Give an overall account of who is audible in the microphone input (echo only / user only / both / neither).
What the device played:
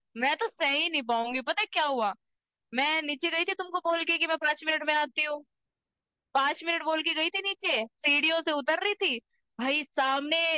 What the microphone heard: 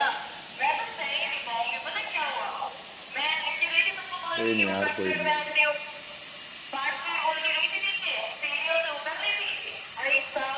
both